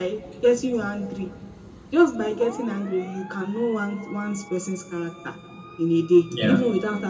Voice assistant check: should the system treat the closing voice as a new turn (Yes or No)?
No